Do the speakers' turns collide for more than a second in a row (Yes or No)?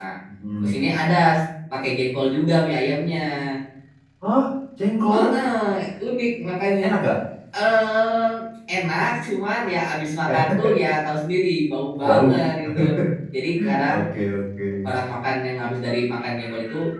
No